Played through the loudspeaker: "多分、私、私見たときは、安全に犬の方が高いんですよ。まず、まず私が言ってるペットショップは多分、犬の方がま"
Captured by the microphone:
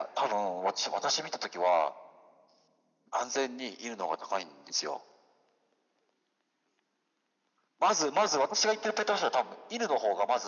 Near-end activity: none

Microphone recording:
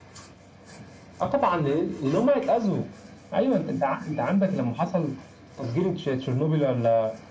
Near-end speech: none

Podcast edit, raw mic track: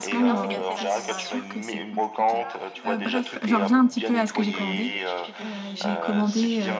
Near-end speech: present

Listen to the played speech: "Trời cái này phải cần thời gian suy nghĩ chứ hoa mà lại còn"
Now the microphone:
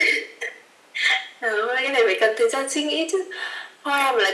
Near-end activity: none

